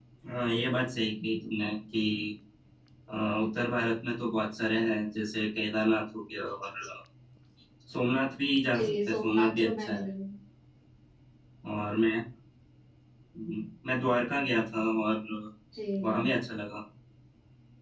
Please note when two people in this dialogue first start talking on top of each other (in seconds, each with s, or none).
8.8 s